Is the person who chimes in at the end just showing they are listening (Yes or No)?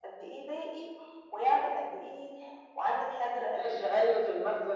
No